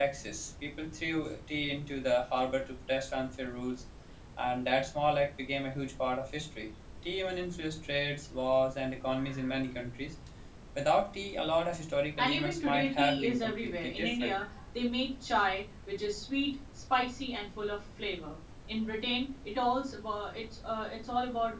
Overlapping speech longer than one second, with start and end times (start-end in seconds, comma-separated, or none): 12.2-14.3